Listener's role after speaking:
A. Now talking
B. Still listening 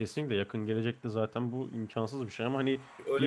A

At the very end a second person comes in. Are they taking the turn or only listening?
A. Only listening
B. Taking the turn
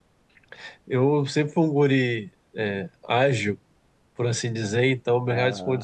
A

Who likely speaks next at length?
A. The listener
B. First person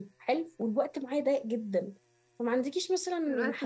B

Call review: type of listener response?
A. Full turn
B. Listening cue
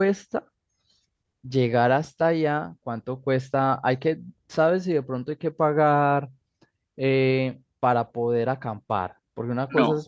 B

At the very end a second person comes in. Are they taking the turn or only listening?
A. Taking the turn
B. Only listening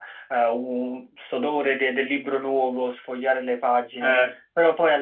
B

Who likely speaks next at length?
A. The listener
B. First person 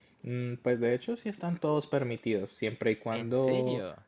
B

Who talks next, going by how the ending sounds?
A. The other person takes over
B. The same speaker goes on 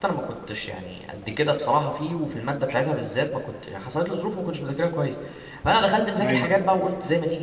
B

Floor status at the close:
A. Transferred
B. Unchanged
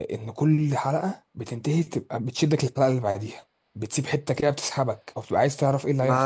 A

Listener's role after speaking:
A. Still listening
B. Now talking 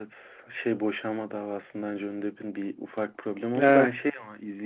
A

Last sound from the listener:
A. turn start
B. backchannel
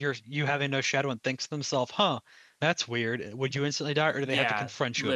A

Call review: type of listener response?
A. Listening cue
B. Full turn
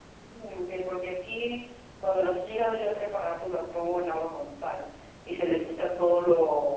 A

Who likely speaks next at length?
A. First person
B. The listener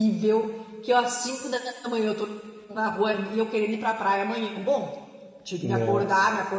A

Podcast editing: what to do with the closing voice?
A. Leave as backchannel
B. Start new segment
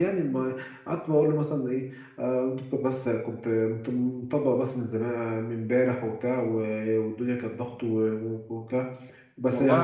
A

